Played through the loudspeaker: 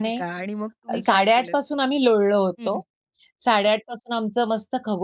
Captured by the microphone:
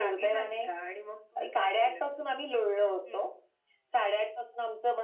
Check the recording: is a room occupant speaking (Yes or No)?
No